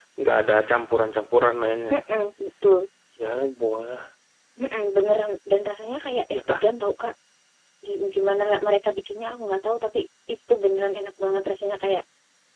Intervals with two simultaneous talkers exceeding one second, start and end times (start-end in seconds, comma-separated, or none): none